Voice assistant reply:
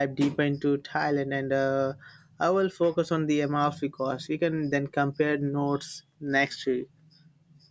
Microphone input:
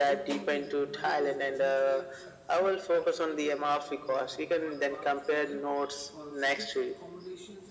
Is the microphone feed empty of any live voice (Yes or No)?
No